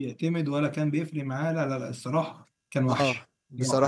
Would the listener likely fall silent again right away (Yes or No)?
No